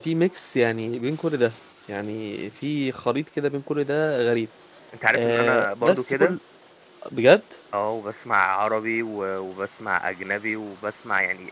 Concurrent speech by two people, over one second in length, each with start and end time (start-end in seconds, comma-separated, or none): 5.1-6.4